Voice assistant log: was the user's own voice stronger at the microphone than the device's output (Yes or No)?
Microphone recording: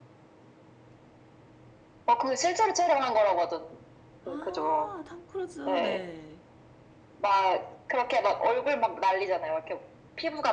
No